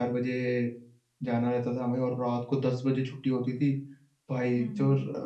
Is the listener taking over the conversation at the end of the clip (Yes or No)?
No